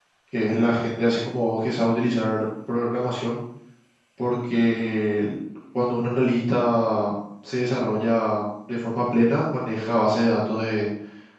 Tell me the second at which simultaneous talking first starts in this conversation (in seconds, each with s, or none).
none